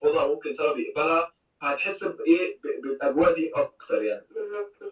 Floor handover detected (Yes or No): Yes